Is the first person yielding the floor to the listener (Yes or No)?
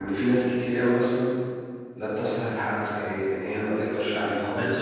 Yes